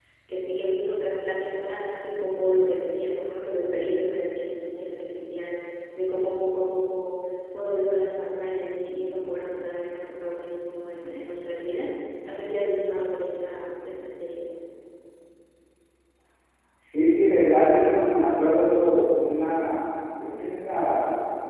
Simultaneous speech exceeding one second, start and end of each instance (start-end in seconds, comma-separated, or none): none